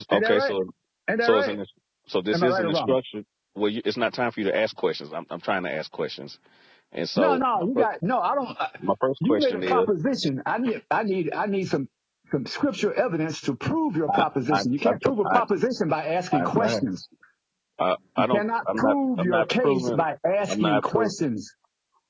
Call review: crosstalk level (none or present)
present